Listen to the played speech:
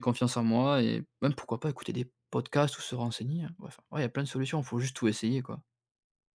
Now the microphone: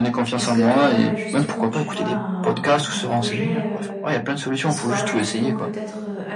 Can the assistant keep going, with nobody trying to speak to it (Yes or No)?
No